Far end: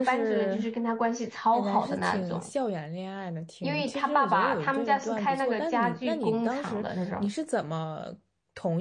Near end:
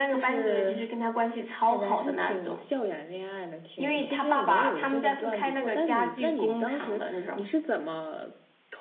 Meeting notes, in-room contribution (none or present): none